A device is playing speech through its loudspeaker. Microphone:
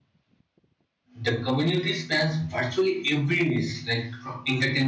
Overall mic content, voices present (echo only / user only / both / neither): user only